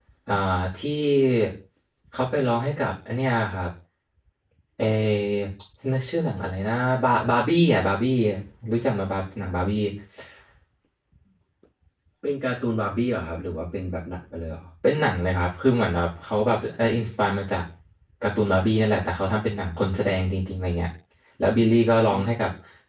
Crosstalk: none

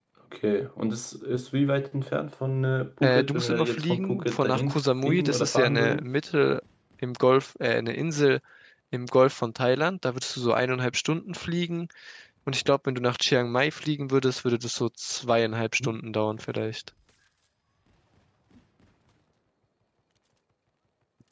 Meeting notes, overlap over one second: present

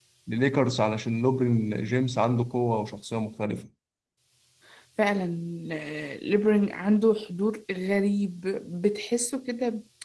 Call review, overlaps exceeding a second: none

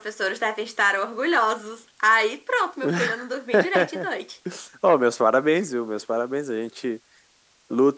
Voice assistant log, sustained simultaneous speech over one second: none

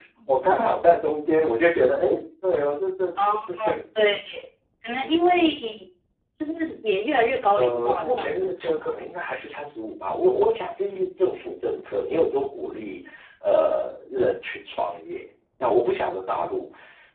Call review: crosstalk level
present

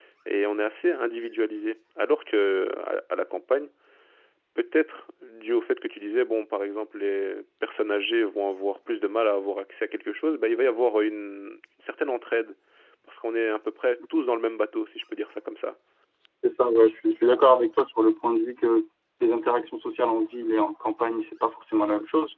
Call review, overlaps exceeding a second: none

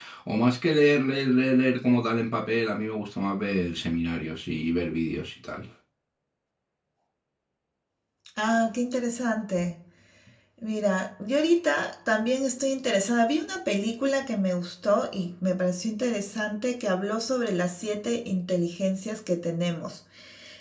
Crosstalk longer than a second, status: none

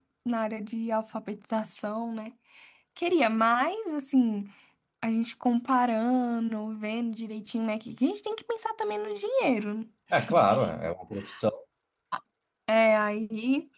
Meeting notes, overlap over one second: none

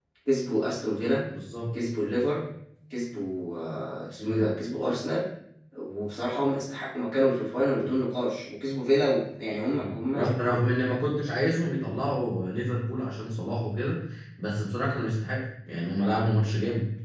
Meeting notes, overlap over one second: none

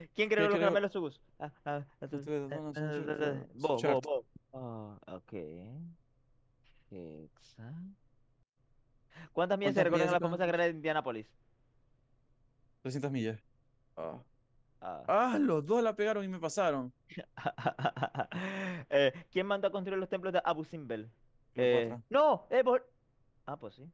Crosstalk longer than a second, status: present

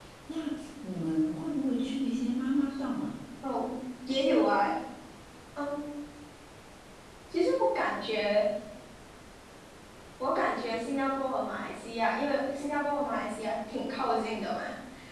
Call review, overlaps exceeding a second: none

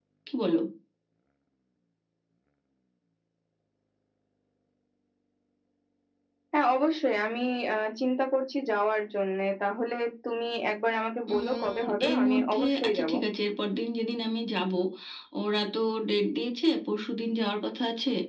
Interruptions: present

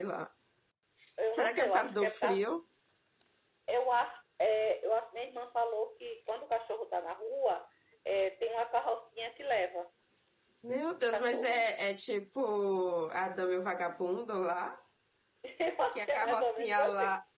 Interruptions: present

